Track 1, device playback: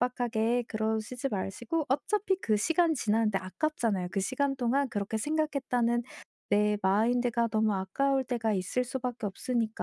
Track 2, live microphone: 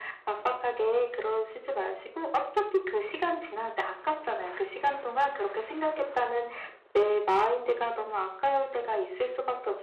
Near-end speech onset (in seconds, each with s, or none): none